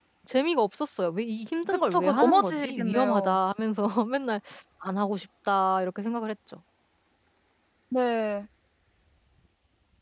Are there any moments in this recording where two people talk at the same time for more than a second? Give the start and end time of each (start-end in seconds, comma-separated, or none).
1.7-3.4